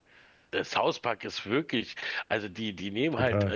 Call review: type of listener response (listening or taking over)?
listening